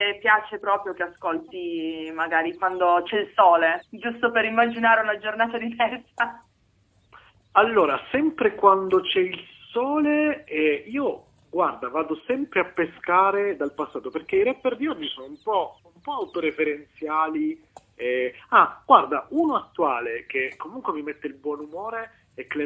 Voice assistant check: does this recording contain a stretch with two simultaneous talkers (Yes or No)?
No